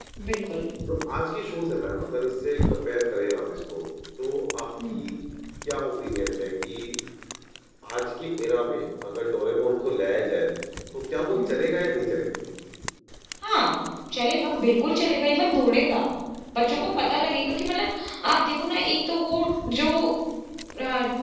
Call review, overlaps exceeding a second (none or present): none